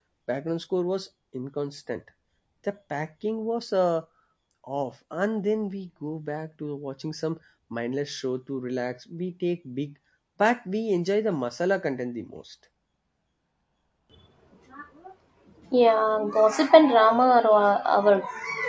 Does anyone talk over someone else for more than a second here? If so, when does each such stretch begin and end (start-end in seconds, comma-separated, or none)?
none